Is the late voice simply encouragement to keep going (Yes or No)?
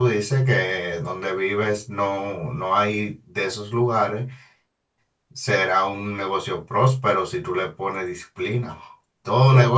Yes